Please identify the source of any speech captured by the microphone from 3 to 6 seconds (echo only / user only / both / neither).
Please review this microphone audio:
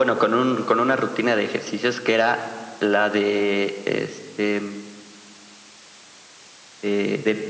echo only